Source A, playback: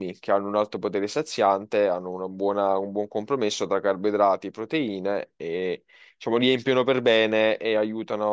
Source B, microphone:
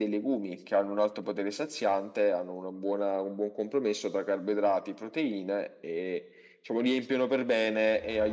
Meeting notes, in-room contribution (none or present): none